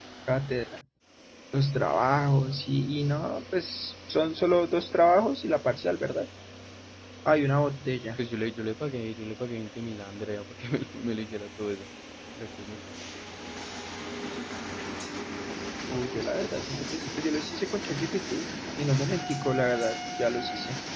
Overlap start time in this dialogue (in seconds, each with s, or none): none